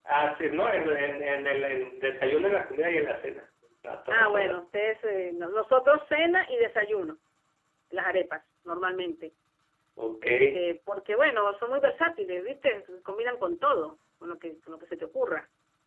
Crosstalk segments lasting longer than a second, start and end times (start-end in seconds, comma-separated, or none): none